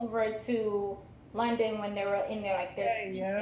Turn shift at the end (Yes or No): No